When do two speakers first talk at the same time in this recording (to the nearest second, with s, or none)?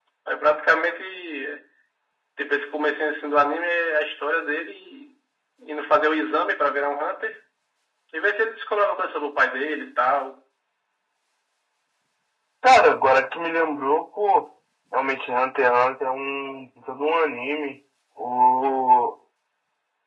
none